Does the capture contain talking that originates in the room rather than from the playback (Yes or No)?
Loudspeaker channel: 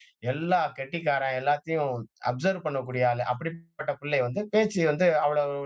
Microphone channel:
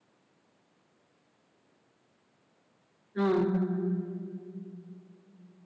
Yes